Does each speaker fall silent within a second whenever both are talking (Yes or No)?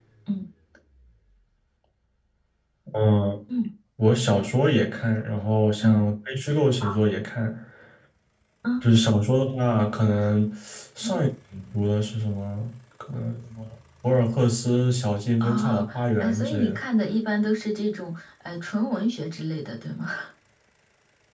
No